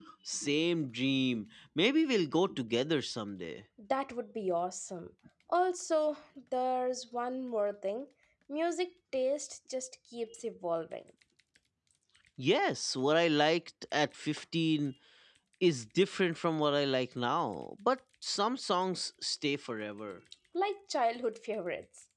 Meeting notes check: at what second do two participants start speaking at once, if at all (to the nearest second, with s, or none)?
none